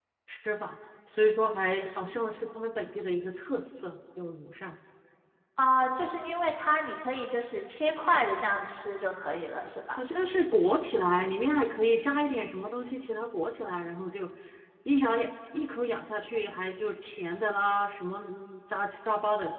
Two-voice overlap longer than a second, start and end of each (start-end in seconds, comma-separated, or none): none